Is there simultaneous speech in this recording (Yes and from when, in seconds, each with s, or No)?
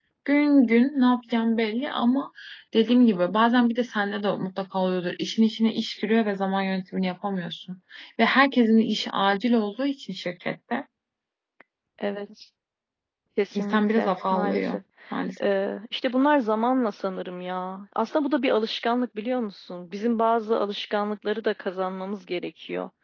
Yes, from 13.6 s